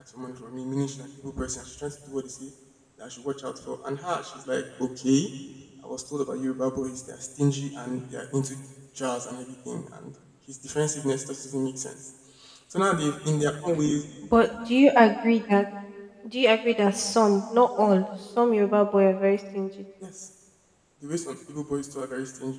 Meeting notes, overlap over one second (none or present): none